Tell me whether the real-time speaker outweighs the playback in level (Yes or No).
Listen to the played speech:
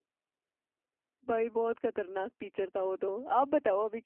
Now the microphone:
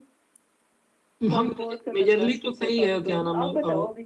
Yes